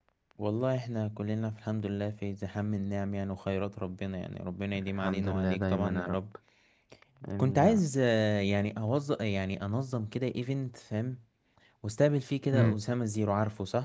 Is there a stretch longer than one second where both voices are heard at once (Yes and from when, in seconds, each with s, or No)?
Yes, from 4.8 s